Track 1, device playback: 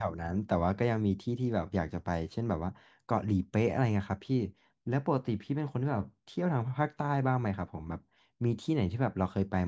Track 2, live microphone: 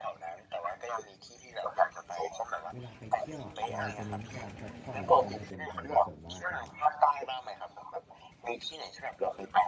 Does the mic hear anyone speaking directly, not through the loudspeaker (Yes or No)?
Yes